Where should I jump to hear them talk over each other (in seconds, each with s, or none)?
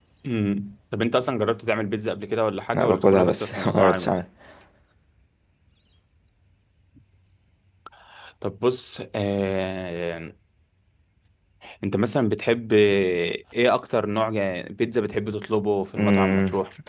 2.7 s